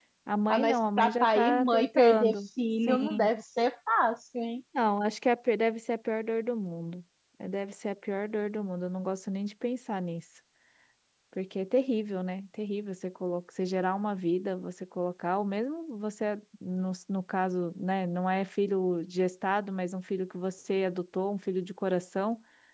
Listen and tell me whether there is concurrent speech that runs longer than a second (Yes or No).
Yes